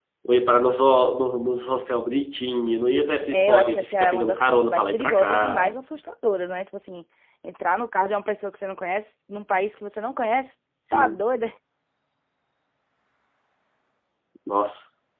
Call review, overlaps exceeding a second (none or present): present